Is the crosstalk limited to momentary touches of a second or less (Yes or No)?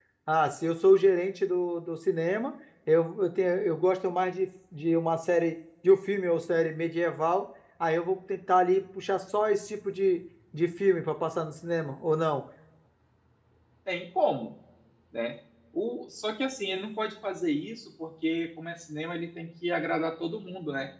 Yes